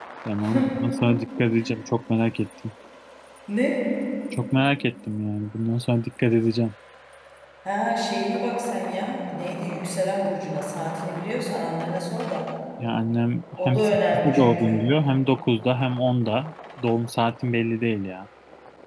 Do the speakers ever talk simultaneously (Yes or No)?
Yes